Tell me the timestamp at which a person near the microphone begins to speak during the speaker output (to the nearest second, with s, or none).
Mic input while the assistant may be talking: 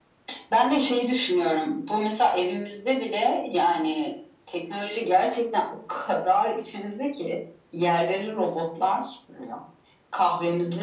none